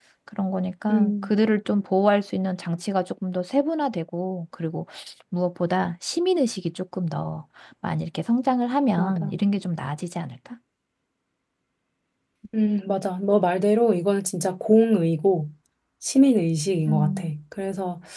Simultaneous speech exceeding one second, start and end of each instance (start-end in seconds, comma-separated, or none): none